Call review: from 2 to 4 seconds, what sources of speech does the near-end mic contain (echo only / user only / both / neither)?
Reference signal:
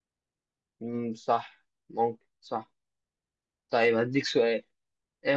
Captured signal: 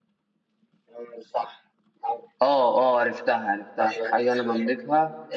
both